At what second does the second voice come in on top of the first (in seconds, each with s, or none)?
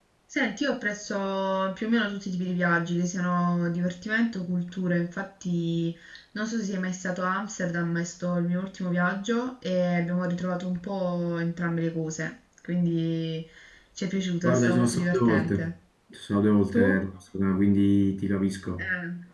14.4 s